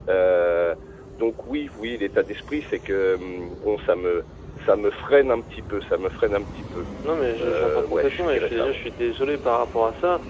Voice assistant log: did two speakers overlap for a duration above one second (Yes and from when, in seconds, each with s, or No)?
Yes, from 7.4 s